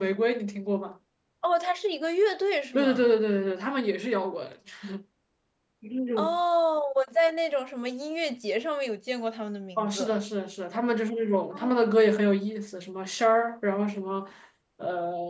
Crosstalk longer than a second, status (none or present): none